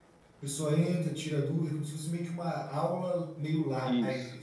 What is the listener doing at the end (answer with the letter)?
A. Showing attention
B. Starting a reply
B